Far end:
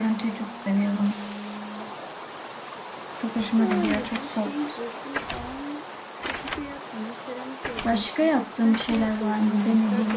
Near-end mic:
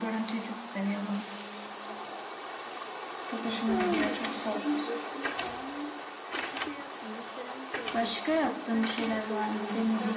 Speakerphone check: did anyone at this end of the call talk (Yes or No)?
No